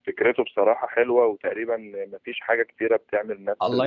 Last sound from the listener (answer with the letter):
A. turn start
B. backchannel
A